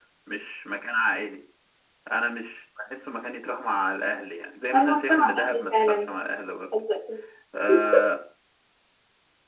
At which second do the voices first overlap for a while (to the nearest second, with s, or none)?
5 s